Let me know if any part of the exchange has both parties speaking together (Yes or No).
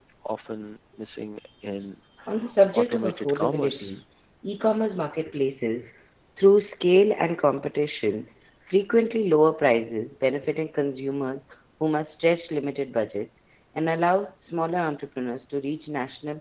Yes